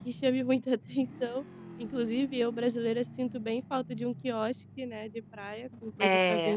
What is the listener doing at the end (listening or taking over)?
taking over